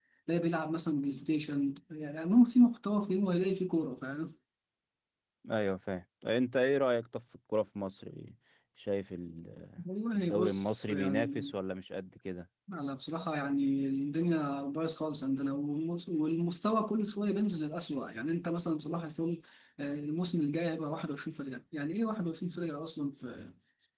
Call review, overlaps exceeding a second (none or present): present